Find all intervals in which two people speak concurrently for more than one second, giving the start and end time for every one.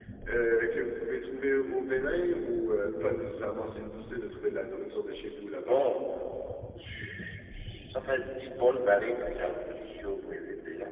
none

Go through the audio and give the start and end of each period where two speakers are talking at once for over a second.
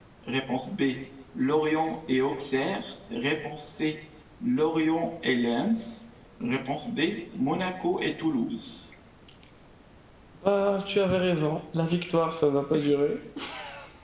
none

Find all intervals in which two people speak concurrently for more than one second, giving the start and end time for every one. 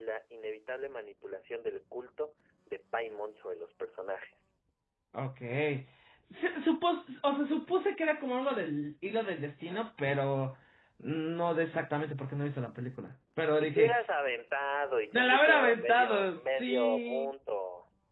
15.1-17.3

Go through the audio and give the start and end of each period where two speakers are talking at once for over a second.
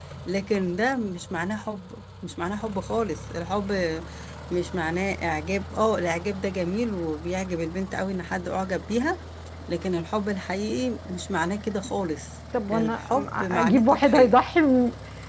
12.7-14.4

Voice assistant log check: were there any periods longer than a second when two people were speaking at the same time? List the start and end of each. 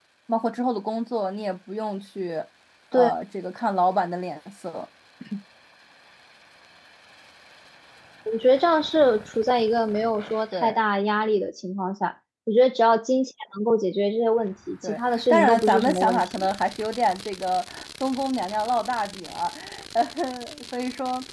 14.8-16.5

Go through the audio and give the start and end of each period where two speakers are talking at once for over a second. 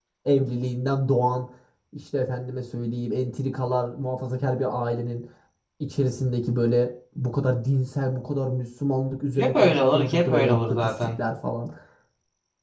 9.3-10.9

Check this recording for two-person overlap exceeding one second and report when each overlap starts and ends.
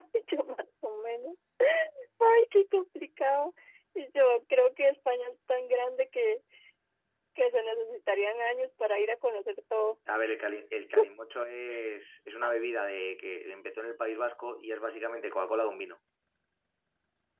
none

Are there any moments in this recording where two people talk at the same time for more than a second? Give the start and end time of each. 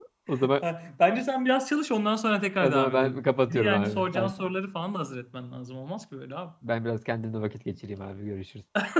2.6-4.3

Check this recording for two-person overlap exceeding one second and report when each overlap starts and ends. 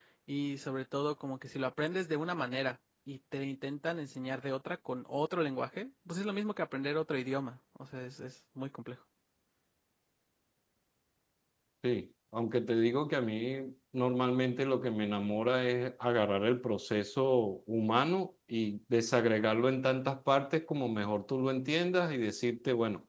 none

